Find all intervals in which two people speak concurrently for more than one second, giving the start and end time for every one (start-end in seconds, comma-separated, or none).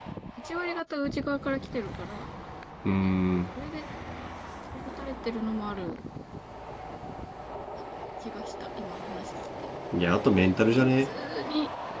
none